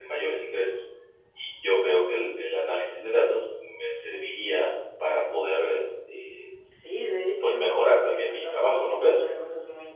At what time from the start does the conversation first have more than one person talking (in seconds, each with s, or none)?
7.4 s